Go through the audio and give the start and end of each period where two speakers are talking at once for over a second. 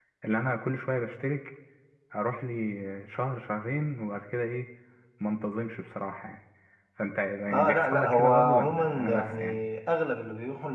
7.5-9.6

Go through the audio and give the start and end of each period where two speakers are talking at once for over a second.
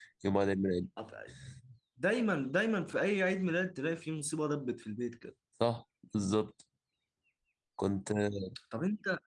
none

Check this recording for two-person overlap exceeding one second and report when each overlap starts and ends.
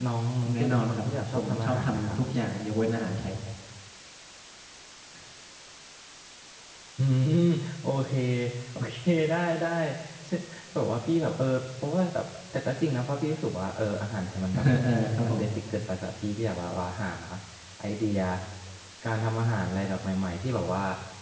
0.5-2.2

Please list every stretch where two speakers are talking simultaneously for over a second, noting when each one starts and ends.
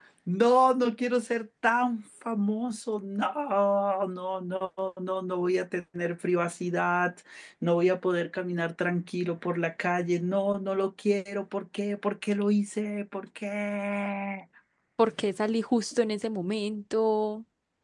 none

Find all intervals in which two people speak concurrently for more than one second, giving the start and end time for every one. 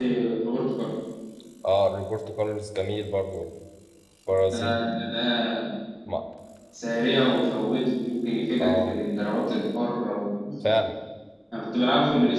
none

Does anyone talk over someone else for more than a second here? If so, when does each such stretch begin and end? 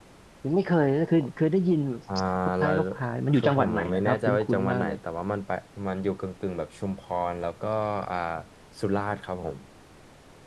3.3-5.0

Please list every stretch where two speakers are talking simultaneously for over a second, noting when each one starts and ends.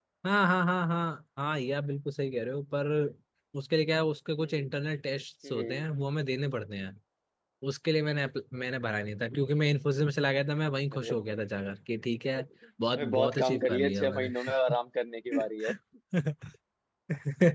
13.0-14.3

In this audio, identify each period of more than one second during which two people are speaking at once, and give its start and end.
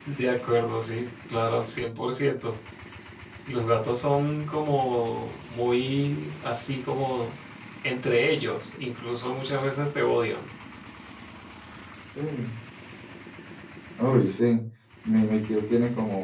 none

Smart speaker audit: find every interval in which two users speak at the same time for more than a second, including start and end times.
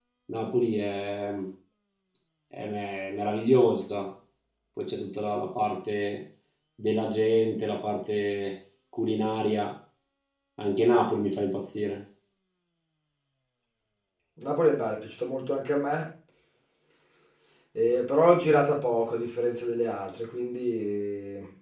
none

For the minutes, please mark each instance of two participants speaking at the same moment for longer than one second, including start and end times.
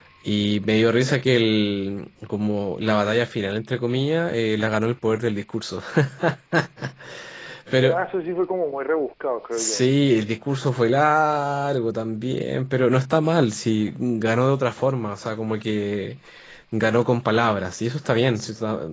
none

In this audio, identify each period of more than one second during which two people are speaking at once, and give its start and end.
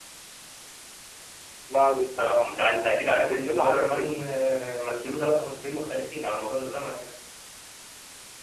2.2-4.1

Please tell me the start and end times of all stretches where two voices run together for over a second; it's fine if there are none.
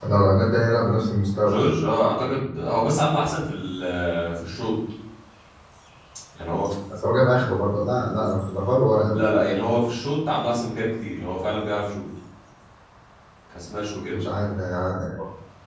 none

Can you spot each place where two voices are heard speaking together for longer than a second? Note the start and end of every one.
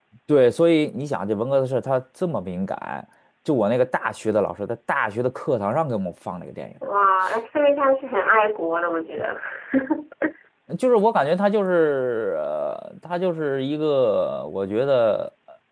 none

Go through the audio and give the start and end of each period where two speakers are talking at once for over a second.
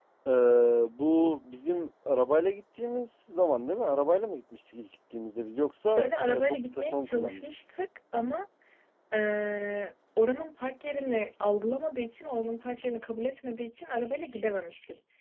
5.8-7.6

